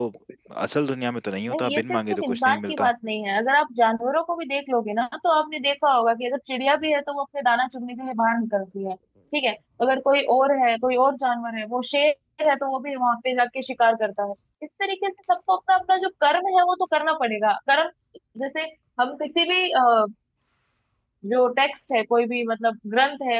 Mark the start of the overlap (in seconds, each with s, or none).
1.5 s